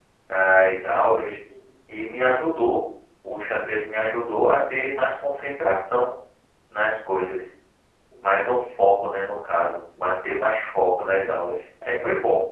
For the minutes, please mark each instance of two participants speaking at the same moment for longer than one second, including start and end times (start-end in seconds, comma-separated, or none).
none